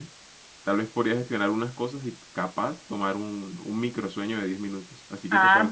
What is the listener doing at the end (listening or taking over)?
taking over